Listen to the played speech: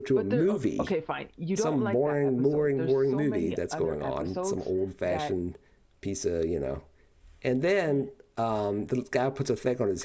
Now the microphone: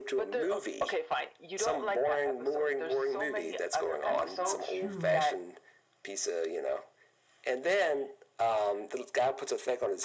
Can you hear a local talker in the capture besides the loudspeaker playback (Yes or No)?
Yes